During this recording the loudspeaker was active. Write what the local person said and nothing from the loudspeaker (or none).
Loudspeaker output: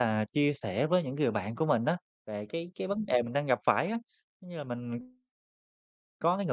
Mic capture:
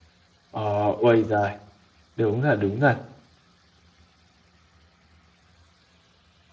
Ờ, ôi giời. Đúng thật, đúng thật.